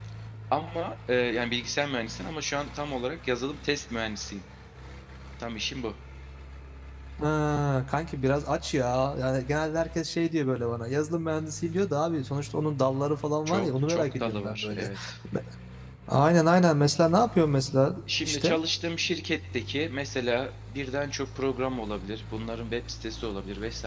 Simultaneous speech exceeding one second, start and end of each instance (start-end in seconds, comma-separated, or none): 13.5-14.9